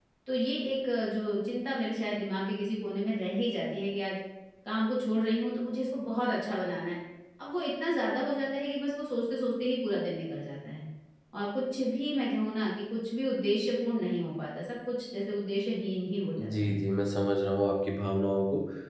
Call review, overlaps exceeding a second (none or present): none